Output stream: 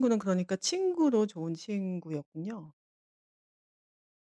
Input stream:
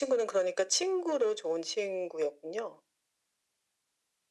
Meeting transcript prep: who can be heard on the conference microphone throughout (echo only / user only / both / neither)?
echo only